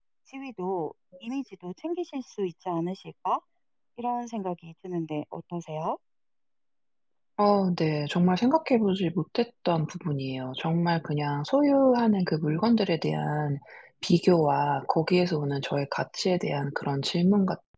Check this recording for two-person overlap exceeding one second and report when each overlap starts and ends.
none

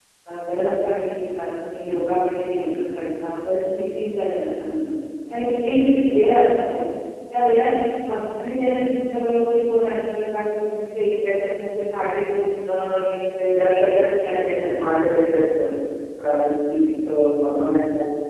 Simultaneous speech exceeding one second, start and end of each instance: 13.6-15.0

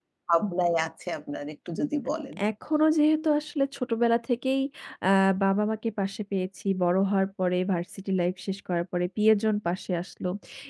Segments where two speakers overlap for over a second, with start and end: none

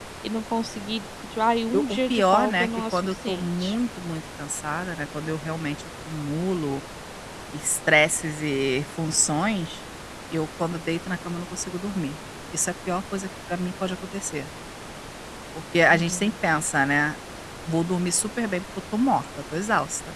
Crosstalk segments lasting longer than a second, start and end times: 1.7-3.8

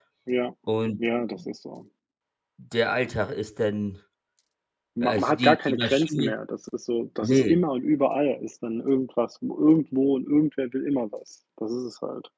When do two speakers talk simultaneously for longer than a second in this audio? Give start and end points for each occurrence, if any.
5.0-6.3

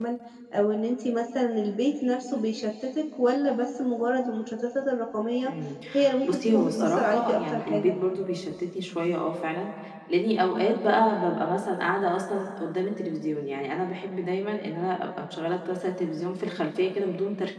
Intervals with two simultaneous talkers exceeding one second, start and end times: 6.2-8.0

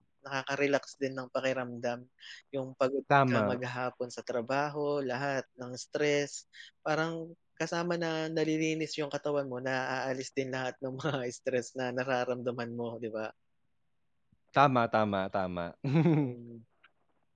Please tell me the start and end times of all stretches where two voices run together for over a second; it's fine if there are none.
none

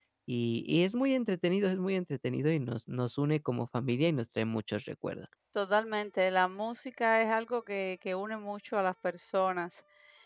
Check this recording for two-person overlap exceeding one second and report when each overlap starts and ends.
none

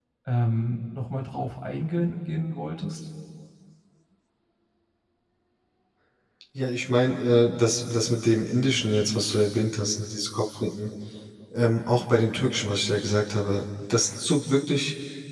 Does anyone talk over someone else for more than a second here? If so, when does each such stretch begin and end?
none

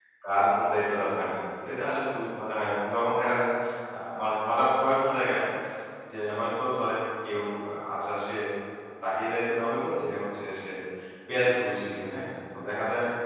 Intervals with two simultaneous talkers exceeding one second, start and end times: none

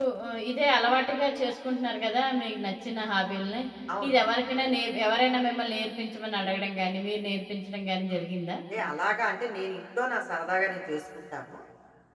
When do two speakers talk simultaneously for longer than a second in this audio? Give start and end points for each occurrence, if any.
none

